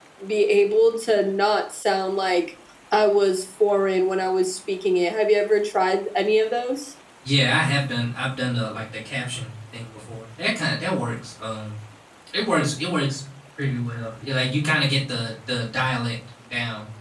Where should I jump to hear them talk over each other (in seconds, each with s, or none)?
none